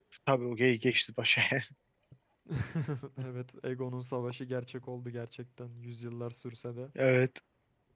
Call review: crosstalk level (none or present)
none